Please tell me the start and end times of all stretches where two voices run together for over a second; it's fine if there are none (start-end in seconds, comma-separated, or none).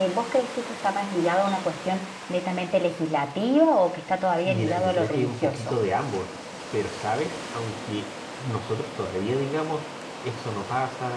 4.5-5.8